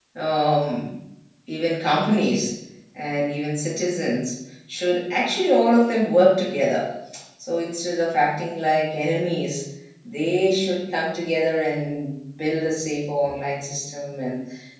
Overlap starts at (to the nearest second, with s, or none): none